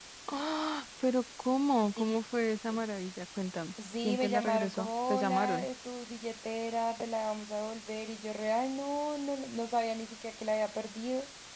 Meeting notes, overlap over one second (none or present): present